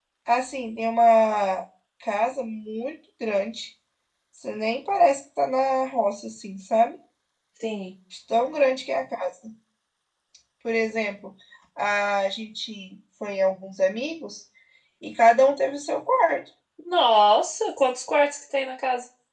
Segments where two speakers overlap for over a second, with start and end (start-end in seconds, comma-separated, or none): none